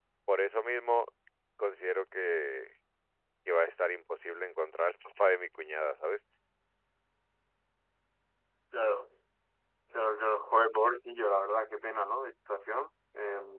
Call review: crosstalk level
none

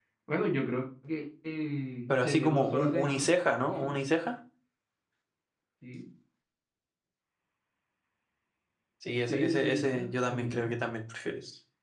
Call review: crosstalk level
present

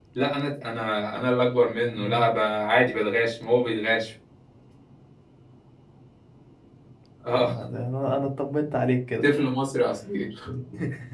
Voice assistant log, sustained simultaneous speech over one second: none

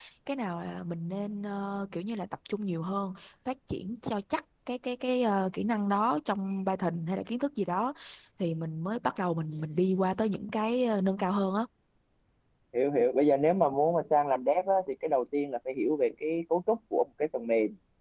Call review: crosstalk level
none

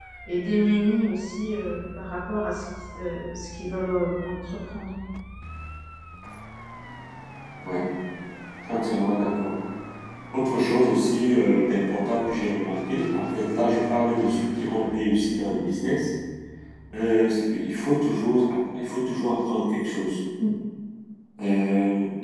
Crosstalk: none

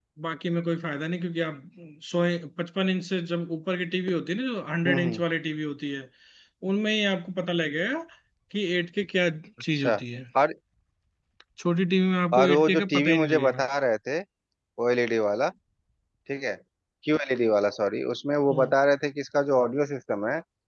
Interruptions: present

